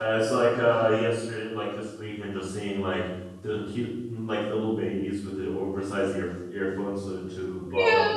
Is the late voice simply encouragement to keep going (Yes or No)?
No